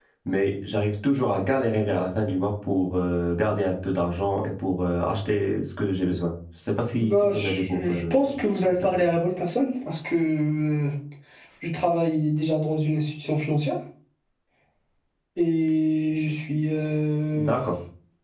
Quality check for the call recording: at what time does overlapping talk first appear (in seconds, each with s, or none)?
7.0 s